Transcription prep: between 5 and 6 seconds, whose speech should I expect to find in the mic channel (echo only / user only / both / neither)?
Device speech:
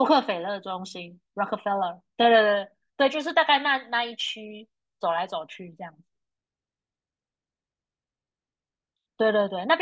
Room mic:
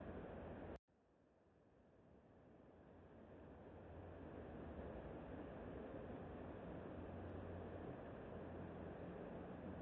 neither